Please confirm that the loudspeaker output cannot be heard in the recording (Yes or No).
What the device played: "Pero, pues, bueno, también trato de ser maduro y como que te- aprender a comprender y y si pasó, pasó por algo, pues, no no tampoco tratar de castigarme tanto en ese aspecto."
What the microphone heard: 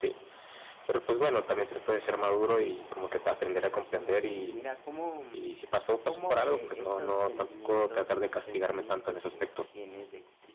No